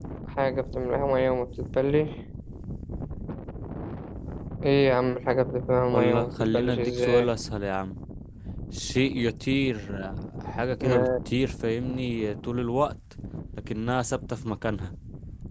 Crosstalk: present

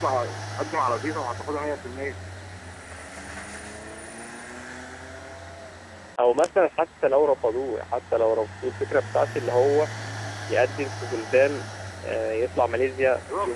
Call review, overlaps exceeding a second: none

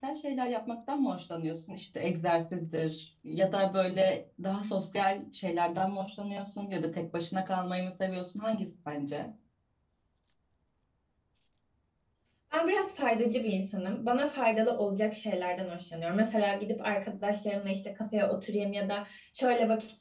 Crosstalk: none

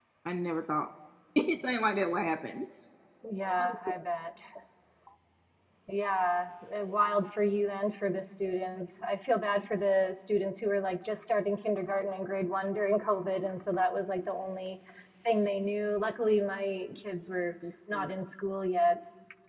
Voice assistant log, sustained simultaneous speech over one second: none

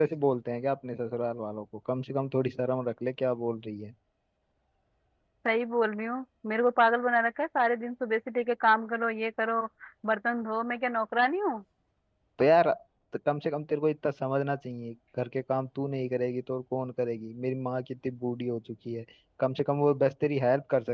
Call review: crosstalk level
none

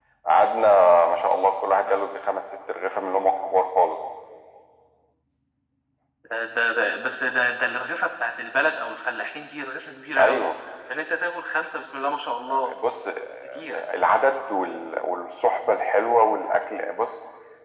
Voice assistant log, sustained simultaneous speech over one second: none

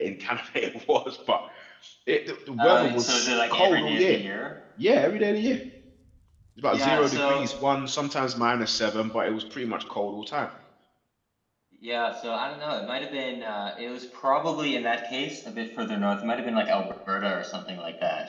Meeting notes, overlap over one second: present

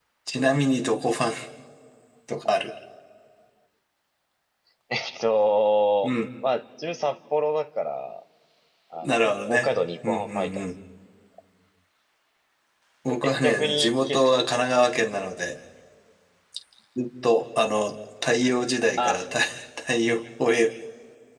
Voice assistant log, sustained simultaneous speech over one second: present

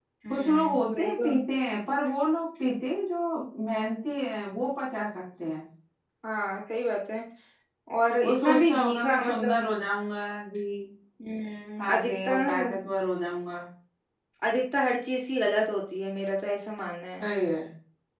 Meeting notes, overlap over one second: present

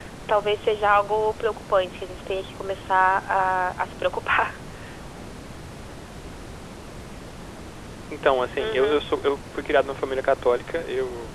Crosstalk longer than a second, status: none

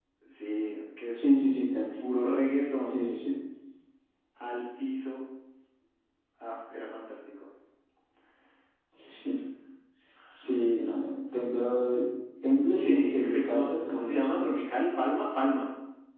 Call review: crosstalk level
present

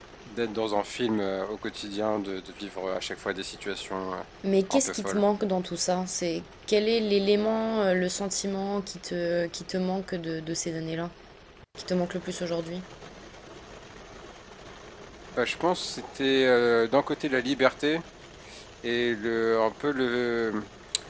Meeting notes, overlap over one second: none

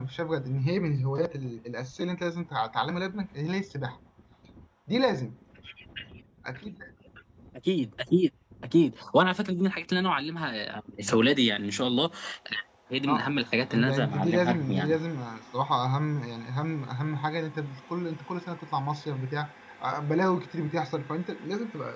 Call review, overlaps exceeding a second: present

